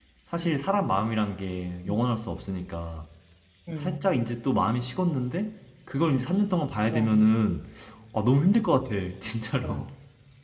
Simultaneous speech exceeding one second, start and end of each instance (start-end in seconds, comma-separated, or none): none